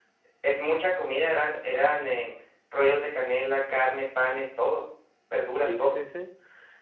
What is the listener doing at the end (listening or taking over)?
taking over